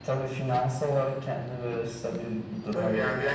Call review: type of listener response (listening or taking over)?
taking over